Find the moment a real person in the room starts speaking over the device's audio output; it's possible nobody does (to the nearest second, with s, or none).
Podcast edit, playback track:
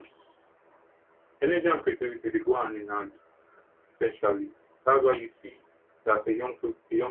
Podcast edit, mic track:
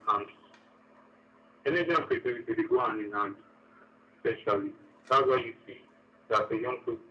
none